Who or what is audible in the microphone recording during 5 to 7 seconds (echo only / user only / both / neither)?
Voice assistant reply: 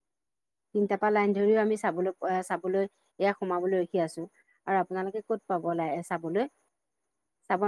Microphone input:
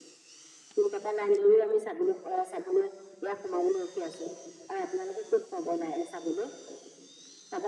echo only